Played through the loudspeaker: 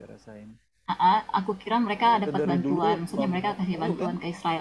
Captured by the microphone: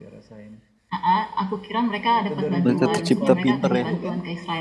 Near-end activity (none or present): present